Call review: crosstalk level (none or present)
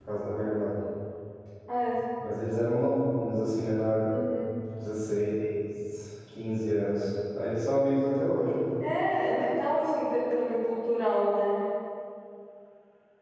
none